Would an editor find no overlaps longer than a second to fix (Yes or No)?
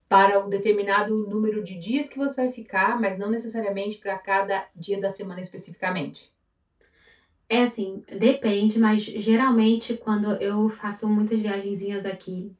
Yes